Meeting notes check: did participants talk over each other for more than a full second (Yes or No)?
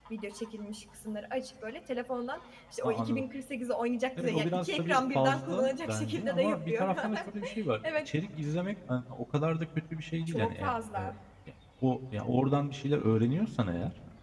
Yes